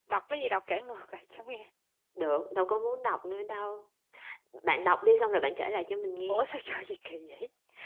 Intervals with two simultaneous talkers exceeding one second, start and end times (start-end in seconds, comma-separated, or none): none